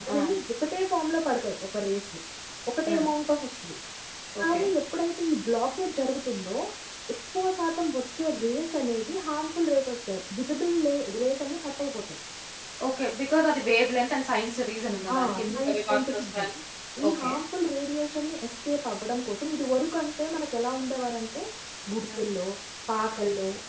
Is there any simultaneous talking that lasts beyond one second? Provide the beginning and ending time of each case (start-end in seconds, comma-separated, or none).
15.2-16.4